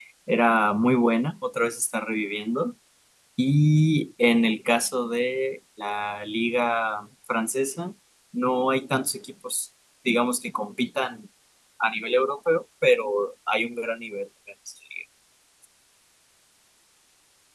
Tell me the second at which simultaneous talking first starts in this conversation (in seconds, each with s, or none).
none